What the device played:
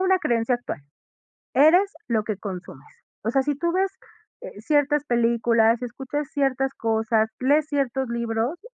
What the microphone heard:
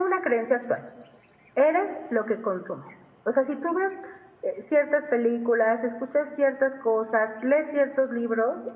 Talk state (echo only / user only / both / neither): echo only